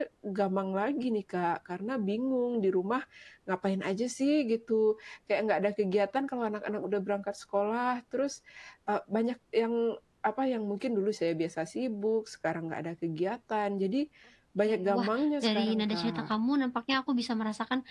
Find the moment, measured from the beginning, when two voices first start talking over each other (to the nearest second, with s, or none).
15 s